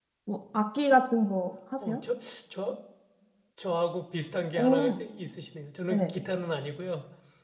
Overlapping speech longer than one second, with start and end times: none

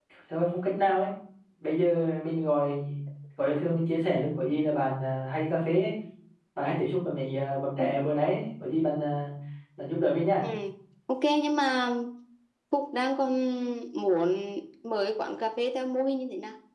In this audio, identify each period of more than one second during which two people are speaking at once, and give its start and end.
none

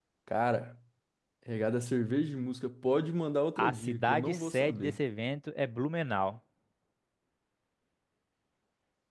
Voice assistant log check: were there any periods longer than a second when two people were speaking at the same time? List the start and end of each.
3.6-5.0

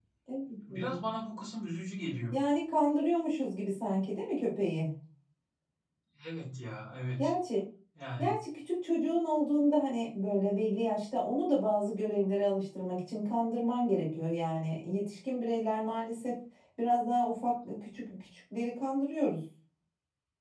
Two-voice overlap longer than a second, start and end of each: none

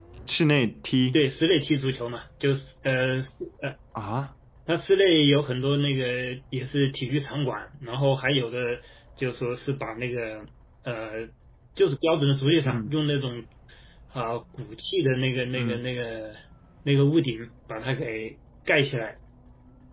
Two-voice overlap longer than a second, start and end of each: none

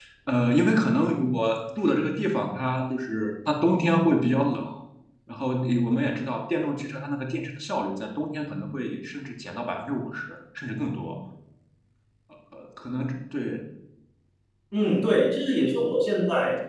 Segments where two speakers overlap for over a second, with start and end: none

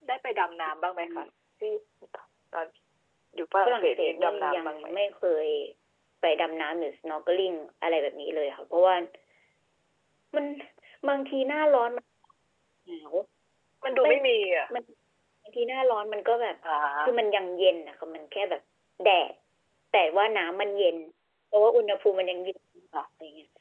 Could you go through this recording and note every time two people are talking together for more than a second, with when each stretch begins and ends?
3.6-4.9

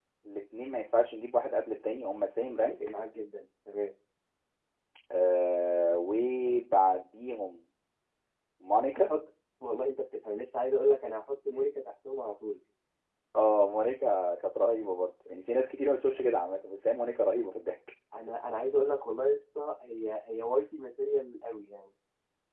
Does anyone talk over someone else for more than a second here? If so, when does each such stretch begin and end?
none

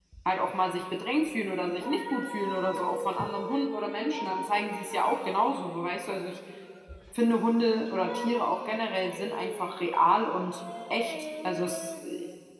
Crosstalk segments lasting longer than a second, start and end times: none

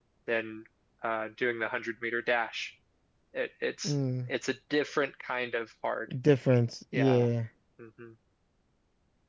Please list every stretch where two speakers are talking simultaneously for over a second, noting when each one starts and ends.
none

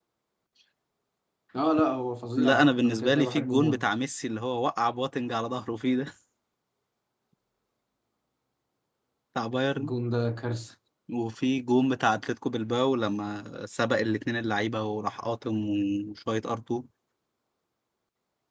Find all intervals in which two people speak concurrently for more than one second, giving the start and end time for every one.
2.4-3.8

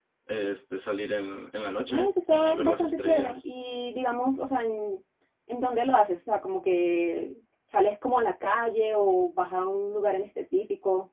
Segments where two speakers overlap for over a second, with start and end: 1.9-3.4

